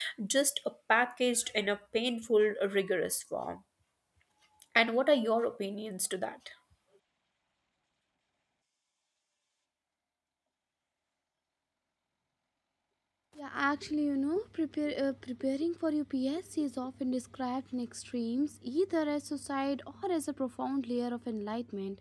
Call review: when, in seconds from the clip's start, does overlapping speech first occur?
none

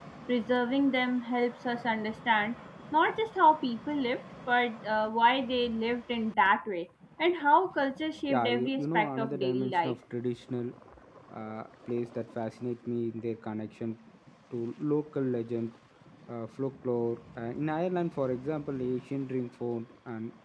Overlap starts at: 8.3 s

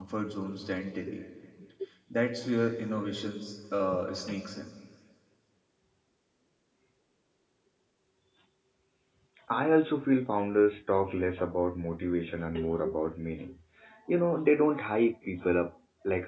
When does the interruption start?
none

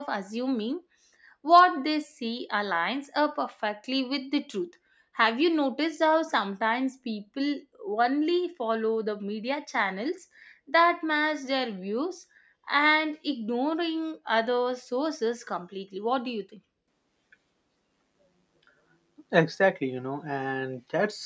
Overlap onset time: none

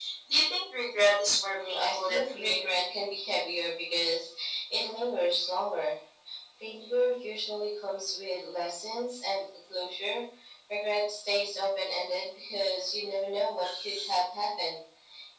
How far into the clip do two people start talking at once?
1.2 s

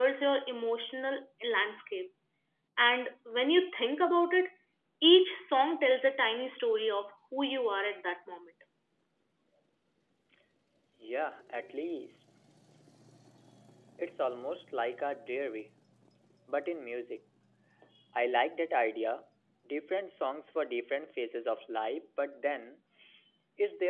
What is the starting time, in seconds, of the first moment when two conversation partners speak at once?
none

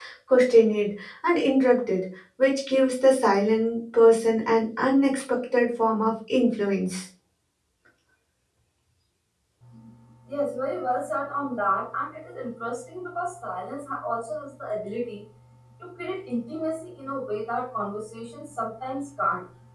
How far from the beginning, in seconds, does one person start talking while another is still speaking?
none

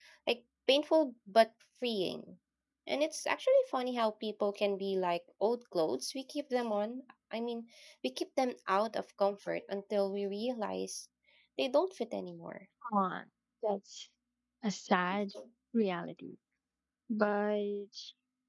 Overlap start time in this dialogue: none

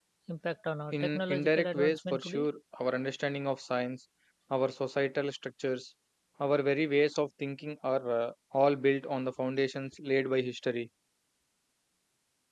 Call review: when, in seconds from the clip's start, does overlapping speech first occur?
0.9 s

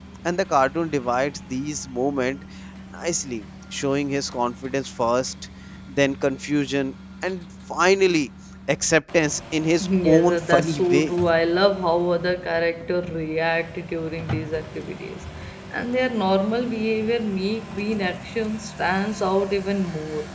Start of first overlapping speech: 9.8 s

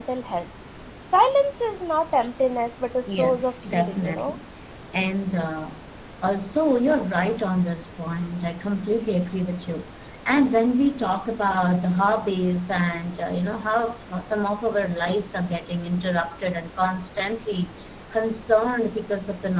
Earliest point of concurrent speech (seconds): 3.1 s

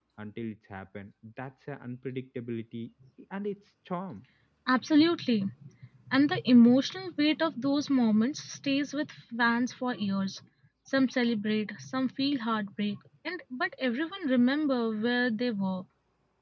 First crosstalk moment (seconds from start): none

